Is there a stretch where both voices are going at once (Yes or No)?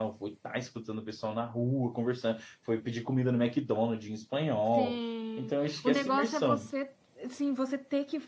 Yes